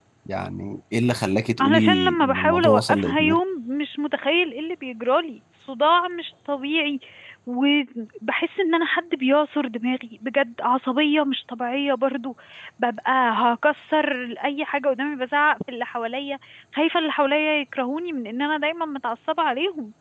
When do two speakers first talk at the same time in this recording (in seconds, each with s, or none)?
1.6 s